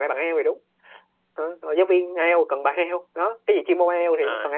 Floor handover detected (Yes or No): Yes